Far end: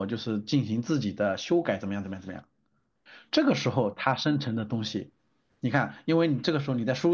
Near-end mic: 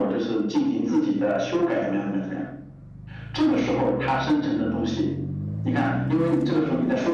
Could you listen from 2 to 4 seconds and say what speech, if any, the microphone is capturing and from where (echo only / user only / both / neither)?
echo only